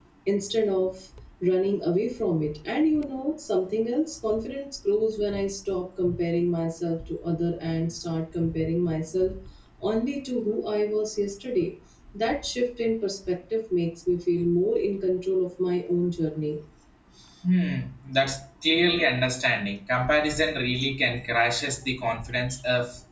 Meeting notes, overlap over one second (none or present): none